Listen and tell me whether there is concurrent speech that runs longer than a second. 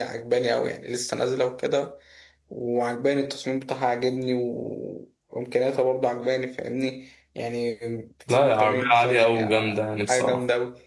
Yes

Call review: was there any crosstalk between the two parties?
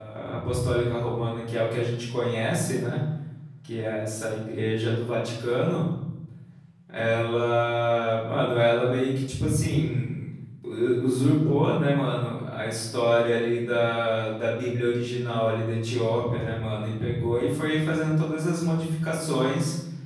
No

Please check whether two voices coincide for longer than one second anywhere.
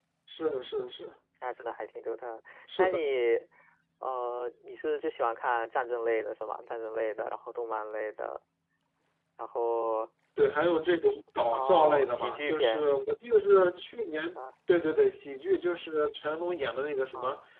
Yes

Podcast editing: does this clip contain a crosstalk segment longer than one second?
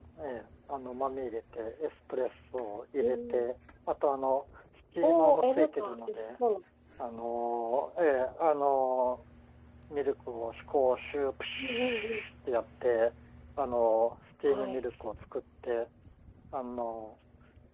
Yes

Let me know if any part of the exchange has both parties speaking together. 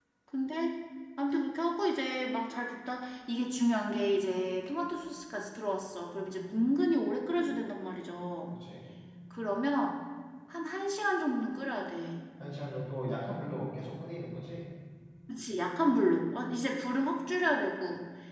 No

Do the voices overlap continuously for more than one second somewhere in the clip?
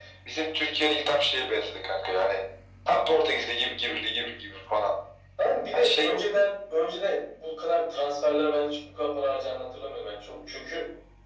No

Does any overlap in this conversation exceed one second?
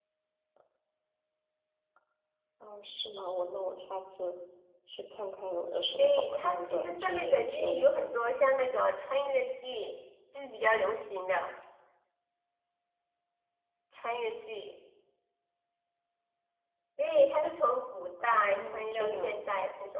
Yes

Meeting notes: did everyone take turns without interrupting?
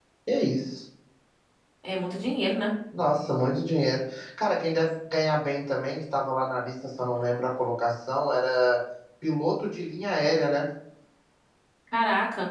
Yes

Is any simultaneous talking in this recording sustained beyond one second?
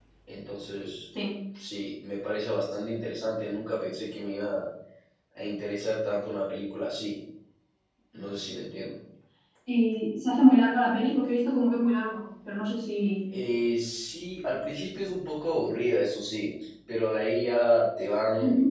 No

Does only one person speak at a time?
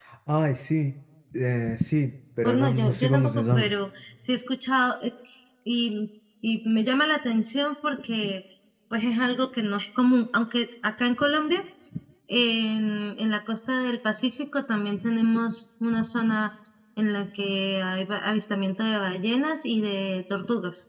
No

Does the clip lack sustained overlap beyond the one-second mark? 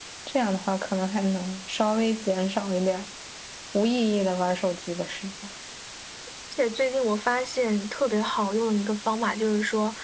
Yes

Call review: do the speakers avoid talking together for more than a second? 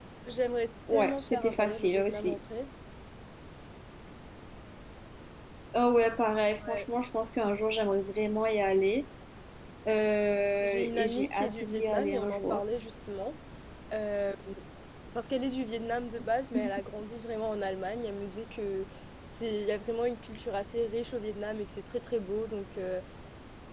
No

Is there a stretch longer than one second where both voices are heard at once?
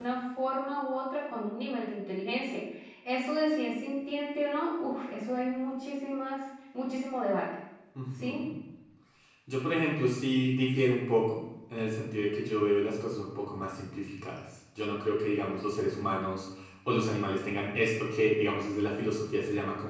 No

